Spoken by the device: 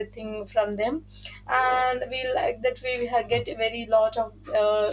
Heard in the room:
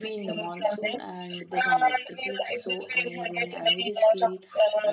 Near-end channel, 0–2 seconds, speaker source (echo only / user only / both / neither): both